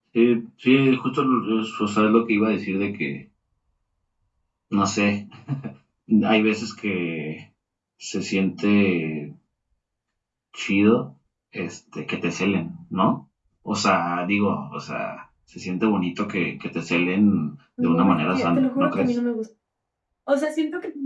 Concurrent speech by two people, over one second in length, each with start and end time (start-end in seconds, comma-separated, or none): 17.8-19.1